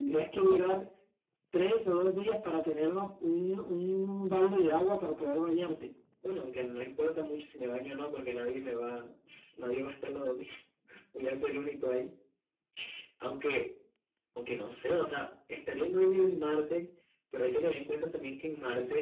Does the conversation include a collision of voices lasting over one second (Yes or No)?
No